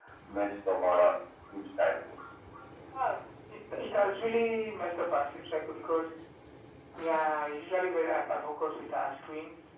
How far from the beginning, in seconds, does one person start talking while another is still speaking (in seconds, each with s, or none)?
none